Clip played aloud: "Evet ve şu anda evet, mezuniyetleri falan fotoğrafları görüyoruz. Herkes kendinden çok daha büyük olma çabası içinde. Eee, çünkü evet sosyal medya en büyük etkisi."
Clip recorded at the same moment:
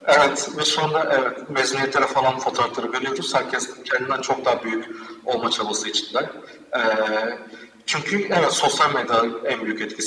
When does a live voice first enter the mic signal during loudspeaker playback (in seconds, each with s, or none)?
none